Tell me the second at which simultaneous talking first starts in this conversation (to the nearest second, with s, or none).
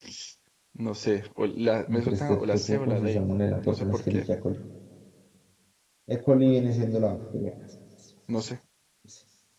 2 s